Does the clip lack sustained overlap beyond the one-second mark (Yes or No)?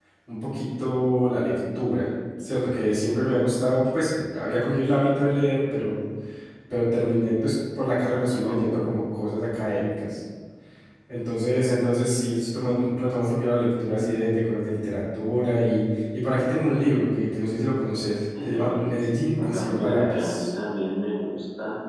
No